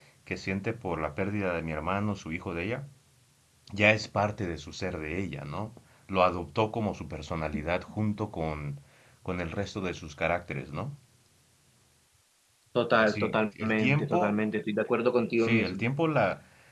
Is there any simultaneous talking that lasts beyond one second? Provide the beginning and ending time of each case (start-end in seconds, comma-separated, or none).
12.9-14.3